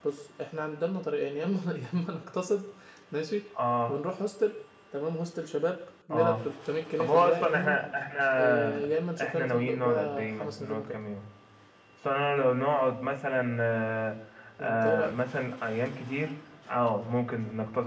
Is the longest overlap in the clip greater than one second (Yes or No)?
Yes